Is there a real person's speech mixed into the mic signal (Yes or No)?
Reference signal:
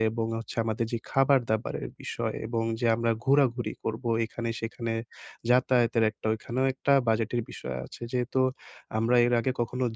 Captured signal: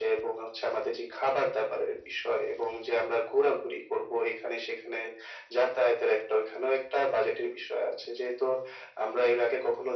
No